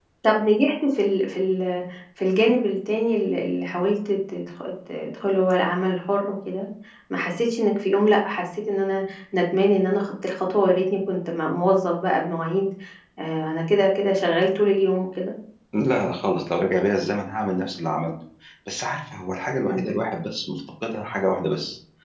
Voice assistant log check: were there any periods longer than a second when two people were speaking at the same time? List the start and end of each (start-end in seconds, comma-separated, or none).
none